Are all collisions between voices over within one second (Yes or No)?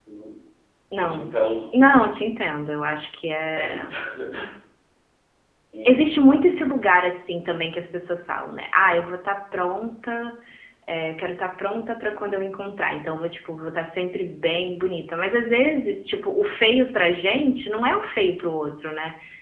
Yes